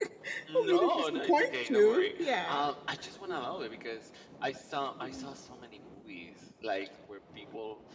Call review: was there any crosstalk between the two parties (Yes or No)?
Yes